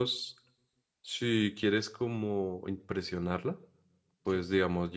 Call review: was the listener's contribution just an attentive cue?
Yes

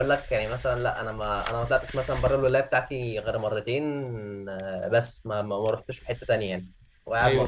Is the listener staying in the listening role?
No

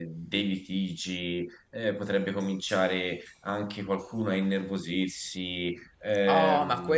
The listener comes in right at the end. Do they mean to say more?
Yes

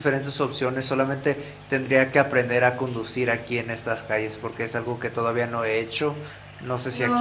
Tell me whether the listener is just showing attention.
No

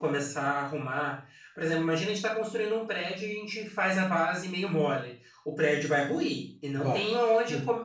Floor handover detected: No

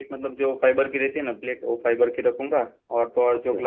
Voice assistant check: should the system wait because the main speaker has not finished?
Yes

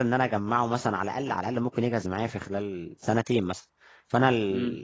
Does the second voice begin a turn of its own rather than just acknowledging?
No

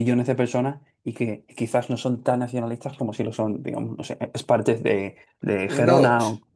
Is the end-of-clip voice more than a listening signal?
Yes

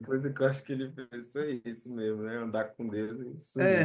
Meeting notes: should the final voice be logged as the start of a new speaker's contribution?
Yes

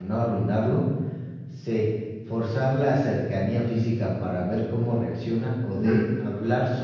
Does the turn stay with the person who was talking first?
Yes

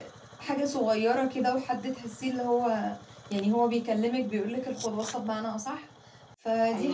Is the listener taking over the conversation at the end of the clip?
No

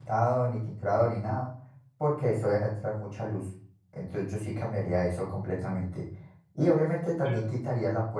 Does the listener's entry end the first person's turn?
No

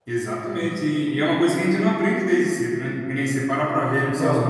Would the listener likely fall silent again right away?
Yes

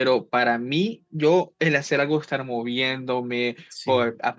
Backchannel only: Yes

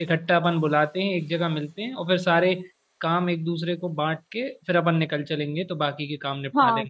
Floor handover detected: Yes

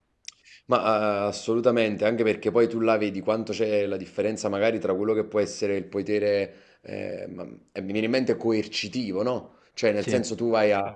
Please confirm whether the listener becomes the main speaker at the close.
No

